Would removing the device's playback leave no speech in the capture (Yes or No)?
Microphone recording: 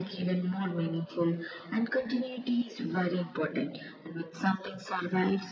Yes